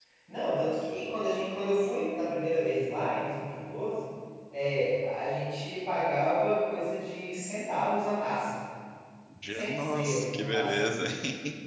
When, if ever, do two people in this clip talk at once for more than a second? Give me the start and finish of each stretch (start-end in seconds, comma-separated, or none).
9.5-10.8